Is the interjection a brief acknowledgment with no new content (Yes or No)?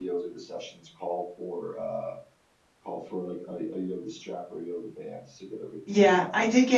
No